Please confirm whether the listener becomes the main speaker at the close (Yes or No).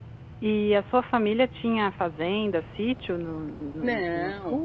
Yes